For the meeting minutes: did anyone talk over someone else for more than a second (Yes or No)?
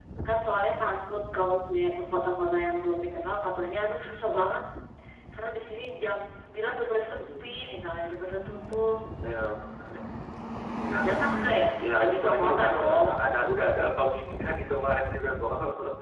Yes